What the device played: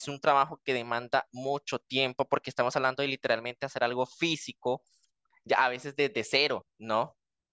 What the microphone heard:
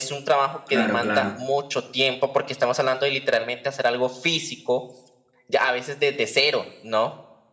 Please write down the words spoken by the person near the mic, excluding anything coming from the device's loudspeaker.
claro, claro.

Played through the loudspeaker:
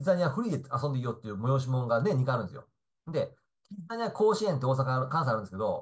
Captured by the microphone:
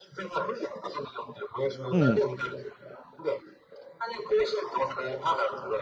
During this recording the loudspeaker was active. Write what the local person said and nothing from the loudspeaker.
うん。

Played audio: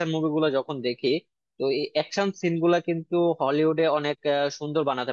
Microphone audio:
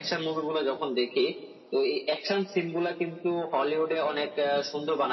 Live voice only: none

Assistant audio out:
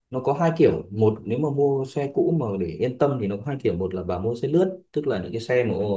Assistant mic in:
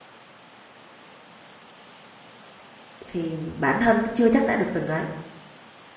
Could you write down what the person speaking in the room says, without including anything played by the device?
thì bản thân nó chưa chắc đã được từng ấy,

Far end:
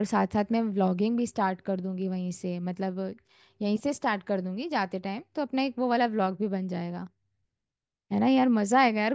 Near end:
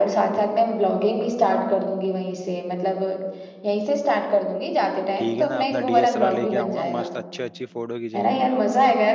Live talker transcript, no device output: ठीक है ना अपना डीएसएलआर लेके आऊंगा मस्त अच्छी अच्छी फोटो खींचेंगे

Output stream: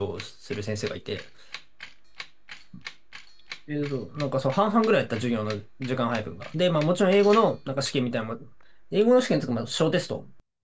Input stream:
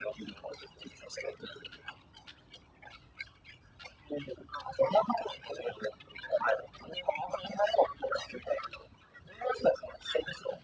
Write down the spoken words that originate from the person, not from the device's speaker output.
none

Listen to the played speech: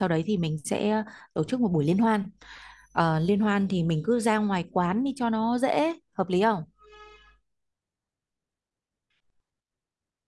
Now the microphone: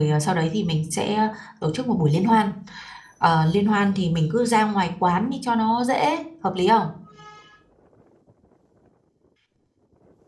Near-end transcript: none

